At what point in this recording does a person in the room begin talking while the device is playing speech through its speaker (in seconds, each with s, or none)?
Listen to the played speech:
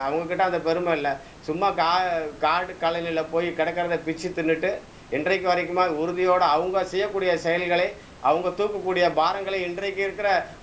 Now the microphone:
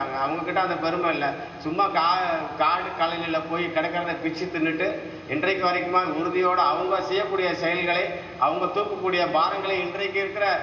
none